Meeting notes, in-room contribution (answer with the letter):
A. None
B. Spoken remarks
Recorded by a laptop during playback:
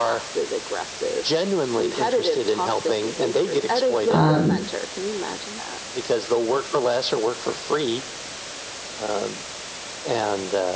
B